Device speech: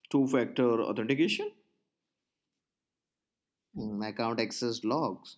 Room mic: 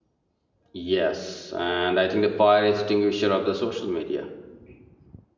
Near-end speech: present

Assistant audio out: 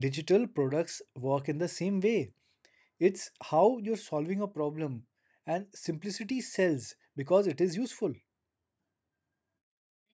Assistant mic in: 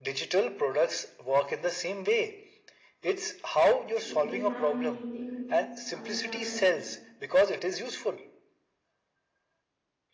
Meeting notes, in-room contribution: present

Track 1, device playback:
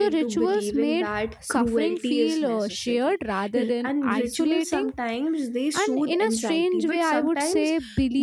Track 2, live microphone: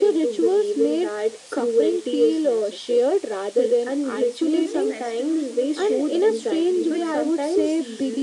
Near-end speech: present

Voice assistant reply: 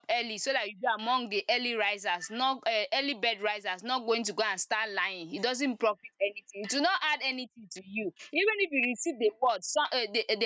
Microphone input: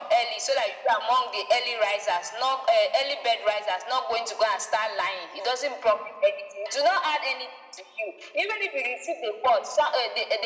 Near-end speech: none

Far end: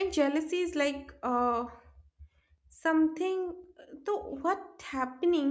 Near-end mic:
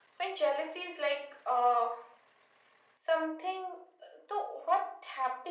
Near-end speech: none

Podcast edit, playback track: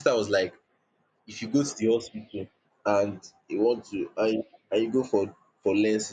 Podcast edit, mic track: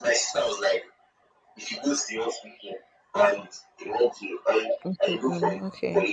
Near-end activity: present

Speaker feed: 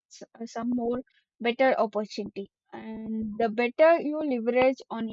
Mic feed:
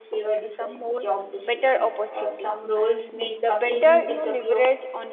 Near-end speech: present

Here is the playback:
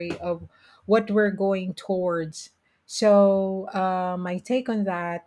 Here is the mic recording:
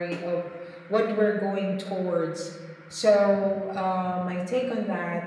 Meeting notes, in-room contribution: none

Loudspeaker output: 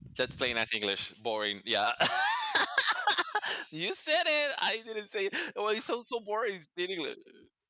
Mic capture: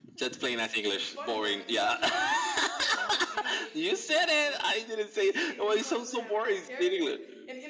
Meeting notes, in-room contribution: present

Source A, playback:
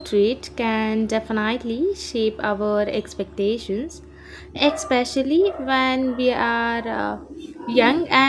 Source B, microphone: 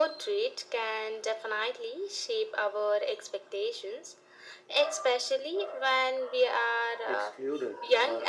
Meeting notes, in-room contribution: present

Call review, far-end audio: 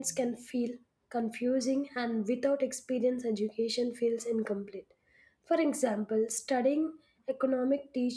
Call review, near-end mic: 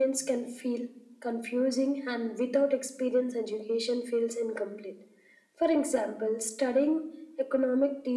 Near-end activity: none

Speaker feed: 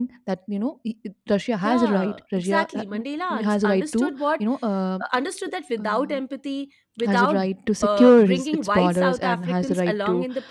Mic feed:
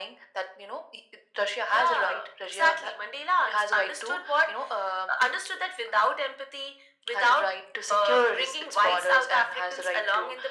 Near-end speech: none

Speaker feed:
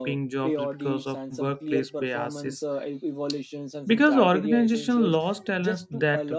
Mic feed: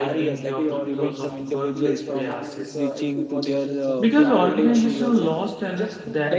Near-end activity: present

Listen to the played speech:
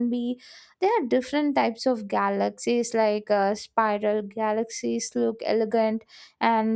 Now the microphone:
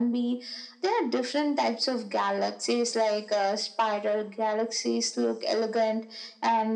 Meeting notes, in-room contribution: none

